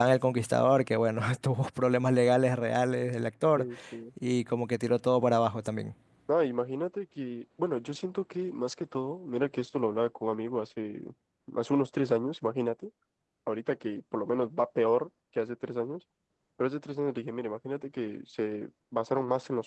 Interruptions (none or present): none